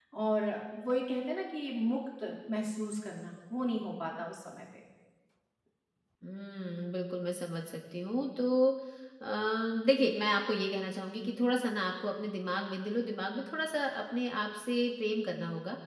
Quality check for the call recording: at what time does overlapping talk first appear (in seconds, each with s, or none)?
none